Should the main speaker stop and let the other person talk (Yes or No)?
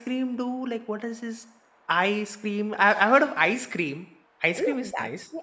Yes